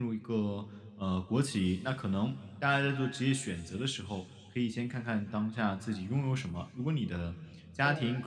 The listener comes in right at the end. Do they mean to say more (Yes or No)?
No